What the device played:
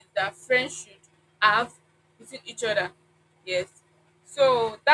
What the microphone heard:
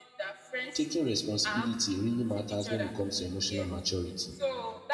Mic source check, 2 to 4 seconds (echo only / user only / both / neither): both